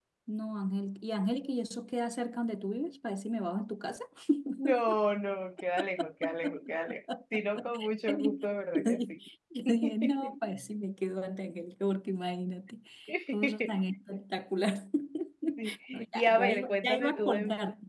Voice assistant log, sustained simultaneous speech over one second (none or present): present